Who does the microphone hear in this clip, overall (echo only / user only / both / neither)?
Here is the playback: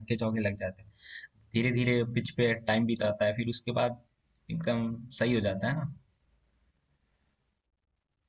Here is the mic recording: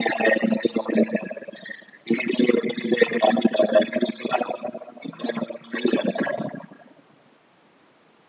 echo only